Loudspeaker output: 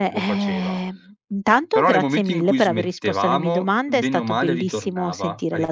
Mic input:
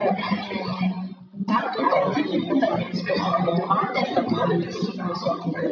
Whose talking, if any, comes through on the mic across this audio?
echo only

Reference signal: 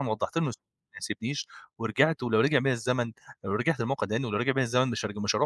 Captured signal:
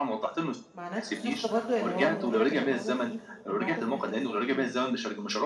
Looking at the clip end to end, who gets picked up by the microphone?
both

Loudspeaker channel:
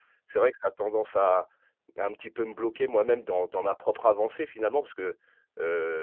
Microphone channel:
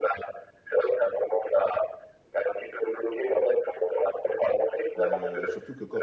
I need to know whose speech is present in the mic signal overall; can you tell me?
both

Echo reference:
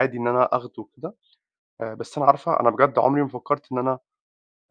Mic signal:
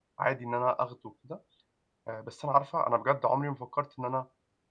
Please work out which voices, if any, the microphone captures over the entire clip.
echo only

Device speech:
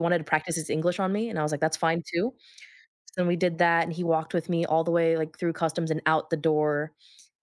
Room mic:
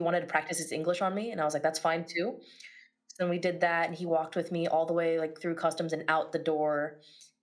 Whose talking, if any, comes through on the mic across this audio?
echo only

